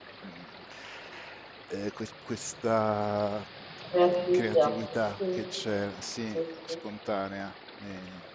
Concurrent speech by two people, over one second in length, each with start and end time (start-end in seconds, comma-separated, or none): none